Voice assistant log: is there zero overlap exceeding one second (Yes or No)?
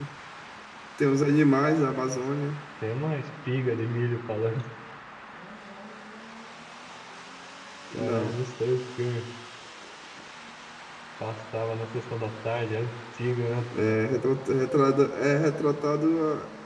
Yes